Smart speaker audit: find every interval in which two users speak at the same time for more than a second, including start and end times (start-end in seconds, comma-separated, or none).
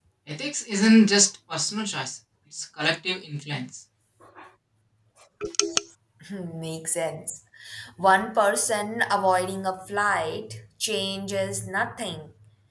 none